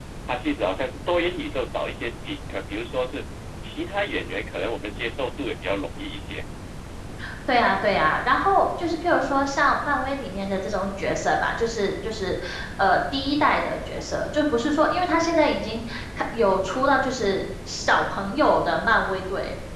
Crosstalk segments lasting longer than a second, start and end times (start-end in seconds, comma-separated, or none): none